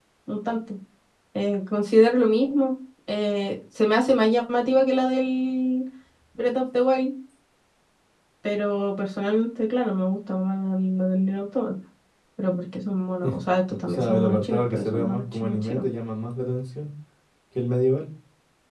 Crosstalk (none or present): present